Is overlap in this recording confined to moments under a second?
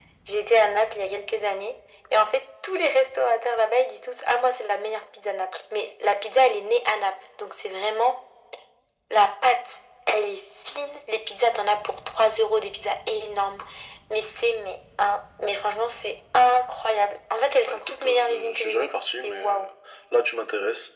No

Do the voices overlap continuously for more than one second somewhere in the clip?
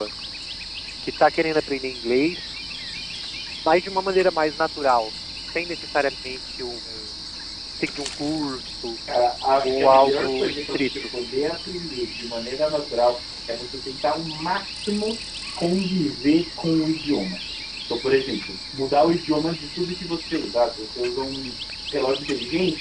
Yes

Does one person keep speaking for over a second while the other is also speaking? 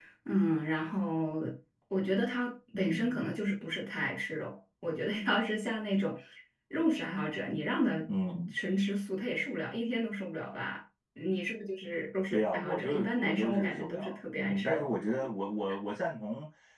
Yes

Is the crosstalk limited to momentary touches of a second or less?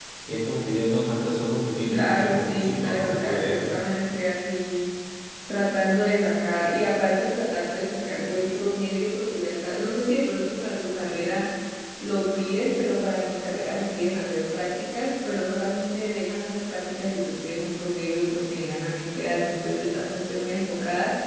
No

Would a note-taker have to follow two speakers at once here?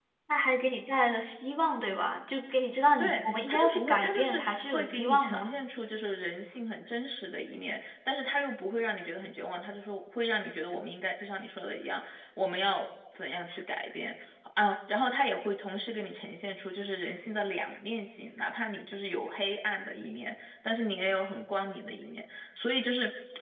Yes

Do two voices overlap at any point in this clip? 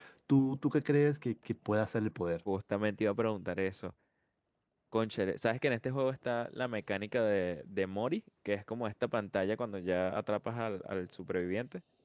No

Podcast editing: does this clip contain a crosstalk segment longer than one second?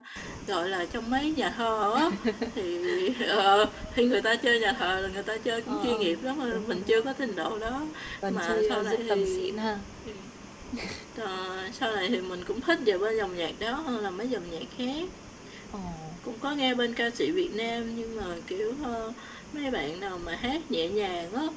Yes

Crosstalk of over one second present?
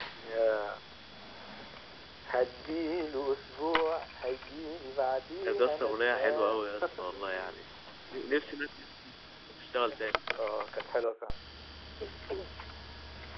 Yes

